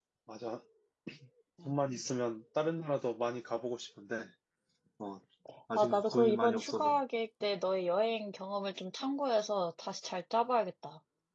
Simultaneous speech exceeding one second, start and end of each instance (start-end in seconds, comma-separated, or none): 5.8-7.0